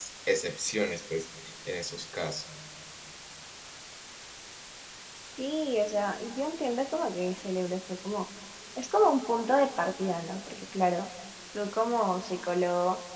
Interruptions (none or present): none